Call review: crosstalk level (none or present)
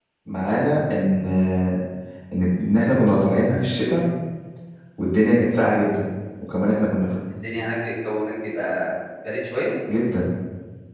none